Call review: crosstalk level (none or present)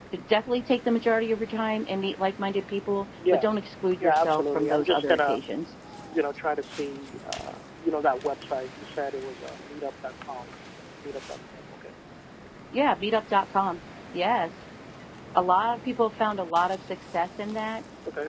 present